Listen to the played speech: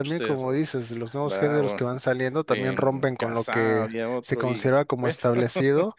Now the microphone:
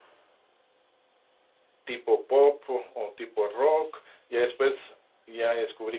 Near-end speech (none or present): present